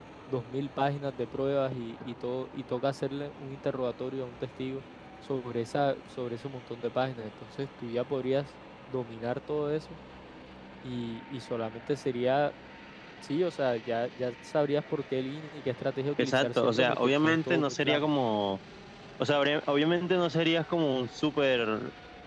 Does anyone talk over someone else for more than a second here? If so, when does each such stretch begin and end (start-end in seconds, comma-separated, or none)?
16.2-18.0